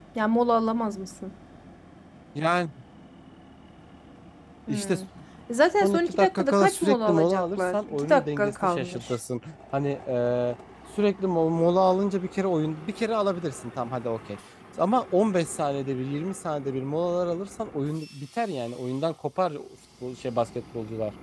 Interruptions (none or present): present